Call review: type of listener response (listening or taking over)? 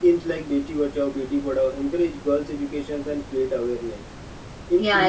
listening